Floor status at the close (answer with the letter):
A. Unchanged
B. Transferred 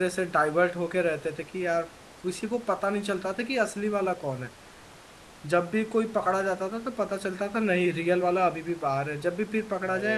A